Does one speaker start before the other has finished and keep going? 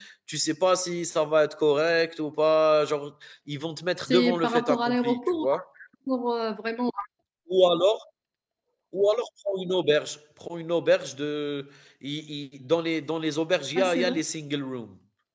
Yes, from 4.1 s

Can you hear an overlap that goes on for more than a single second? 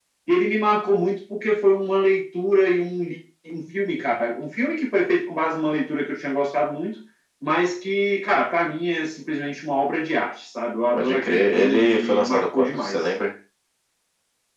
Yes, from 10.9 s

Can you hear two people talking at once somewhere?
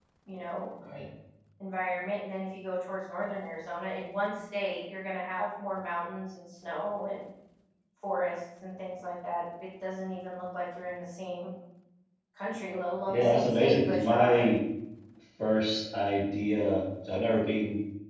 Yes, from 13.1 s

